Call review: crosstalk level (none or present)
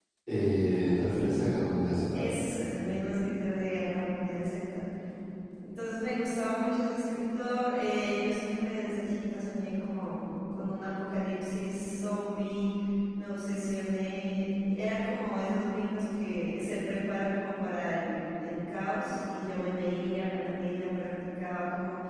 none